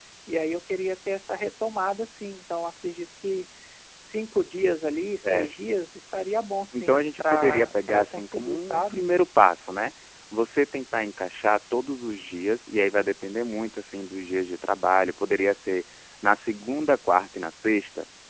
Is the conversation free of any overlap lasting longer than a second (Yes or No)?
No